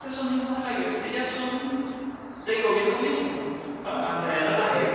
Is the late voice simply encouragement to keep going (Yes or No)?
Yes